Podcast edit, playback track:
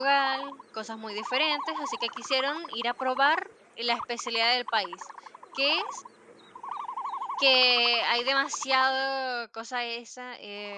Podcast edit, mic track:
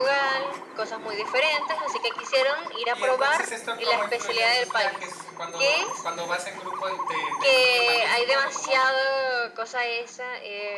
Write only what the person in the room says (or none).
Y entonces, ¿esto cómo influye en tus viajes? Cuando cuando vas en grupo y te te influye también, supongo, como a mí.